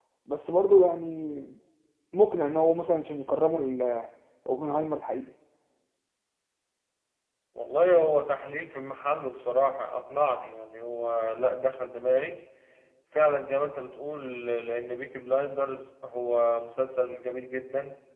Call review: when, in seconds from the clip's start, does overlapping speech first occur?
none

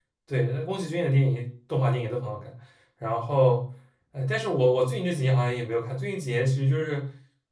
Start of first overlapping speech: none

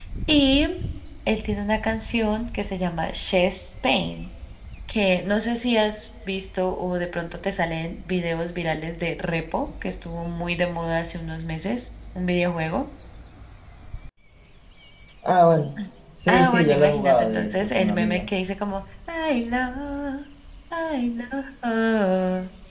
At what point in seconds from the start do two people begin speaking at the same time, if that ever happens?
16.3 s

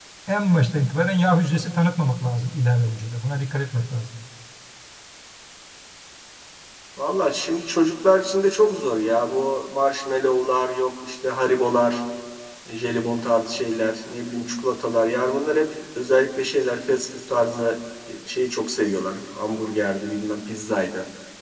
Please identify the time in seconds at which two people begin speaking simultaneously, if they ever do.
none

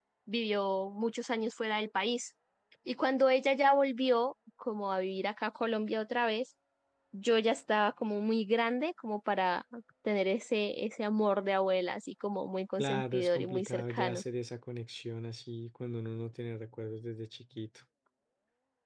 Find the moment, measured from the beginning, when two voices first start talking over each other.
12.8 s

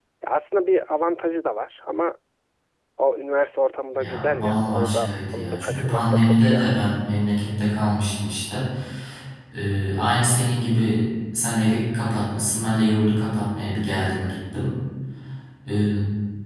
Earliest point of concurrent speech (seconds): 4.0 s

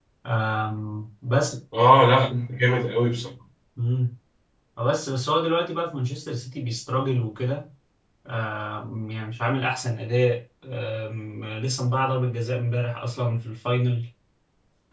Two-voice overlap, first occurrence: none

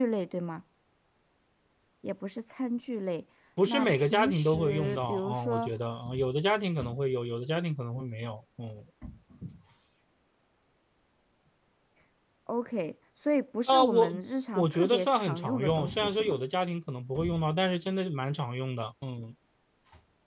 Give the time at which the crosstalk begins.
3.7 s

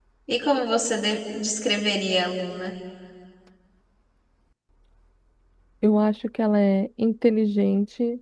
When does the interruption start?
none

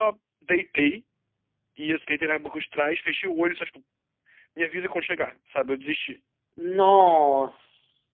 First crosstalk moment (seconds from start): none

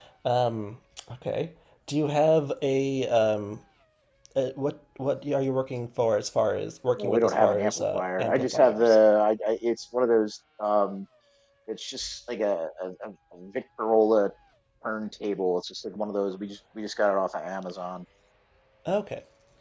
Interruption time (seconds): 7.0 s

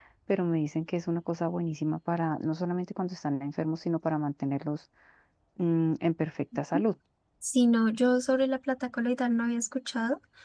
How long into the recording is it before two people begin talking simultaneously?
none

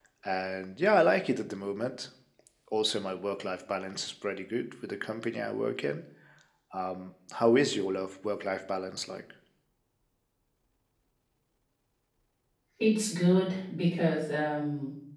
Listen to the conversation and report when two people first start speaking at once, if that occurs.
none

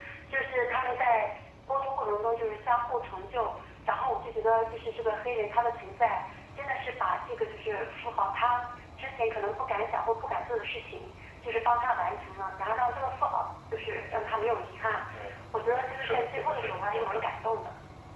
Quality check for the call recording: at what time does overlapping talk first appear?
15.5 s

